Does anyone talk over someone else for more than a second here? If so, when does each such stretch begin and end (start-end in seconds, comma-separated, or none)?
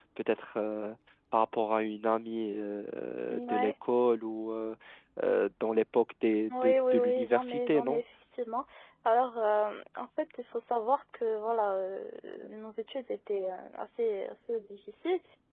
6.5-8.0